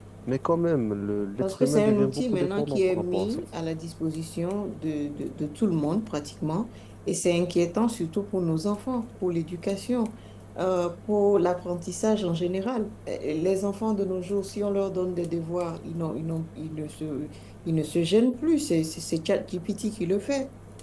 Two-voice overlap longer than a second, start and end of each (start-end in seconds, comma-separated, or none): 1.4-3.4